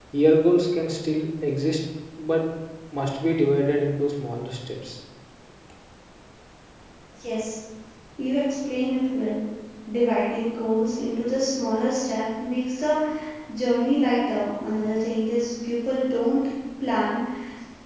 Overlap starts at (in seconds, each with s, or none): none